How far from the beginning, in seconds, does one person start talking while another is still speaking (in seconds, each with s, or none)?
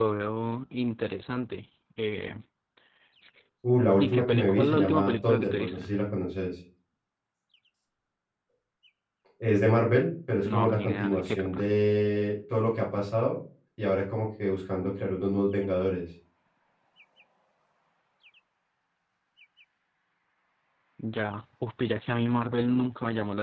4.0 s